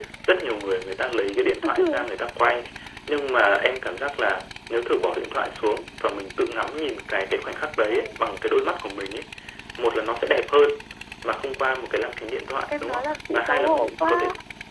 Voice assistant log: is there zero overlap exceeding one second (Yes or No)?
No